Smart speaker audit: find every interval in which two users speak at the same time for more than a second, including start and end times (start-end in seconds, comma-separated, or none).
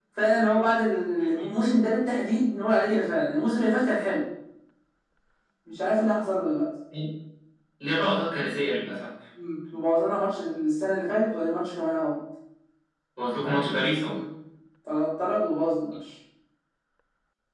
none